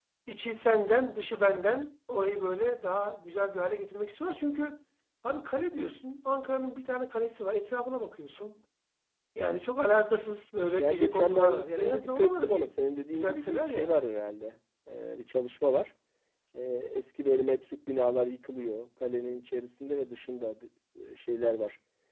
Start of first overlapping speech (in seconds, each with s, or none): 10.8 s